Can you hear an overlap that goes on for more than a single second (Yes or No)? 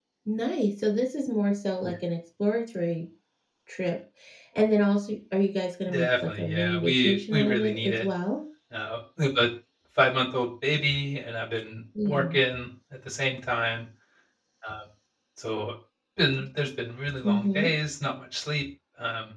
Yes